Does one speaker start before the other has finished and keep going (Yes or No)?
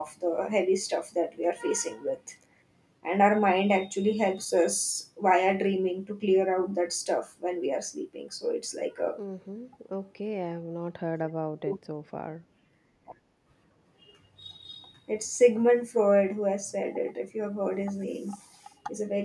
No